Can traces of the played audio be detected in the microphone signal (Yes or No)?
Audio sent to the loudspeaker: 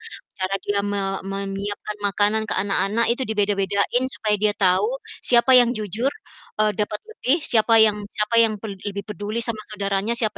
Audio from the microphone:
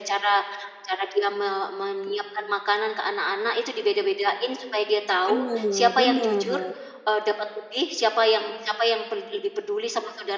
Yes